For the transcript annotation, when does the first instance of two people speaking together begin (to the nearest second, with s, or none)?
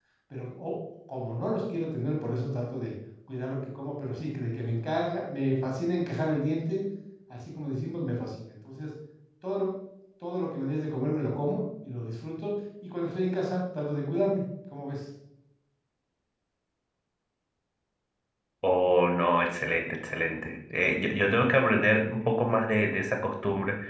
none